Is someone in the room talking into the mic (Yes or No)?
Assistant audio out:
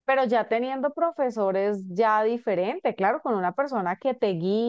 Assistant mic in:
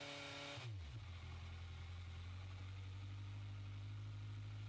No